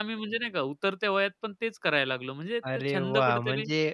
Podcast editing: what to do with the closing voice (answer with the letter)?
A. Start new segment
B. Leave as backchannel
A